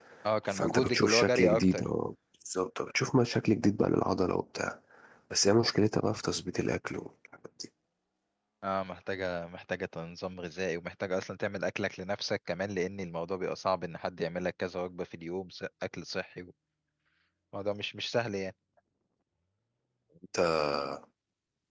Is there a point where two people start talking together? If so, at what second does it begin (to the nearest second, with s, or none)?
1 s